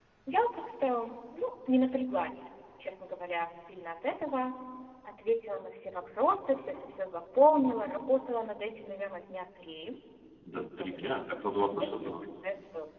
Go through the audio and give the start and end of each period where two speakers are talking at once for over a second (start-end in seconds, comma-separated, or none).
10.5-12.1